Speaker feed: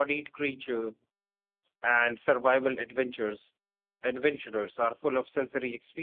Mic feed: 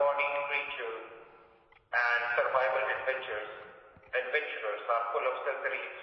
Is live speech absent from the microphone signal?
Yes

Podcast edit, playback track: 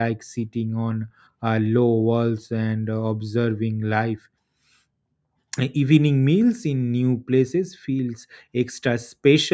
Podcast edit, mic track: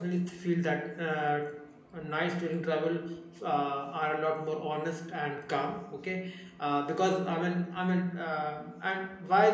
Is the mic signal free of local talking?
No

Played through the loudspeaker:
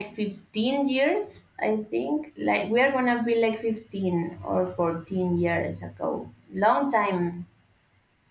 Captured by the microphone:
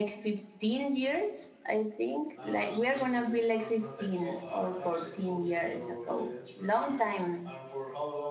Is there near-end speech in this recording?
Yes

